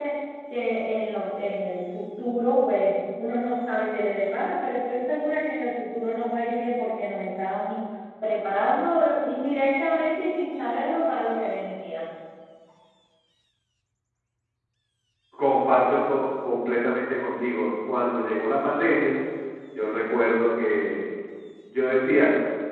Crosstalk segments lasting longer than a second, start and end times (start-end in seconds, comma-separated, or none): none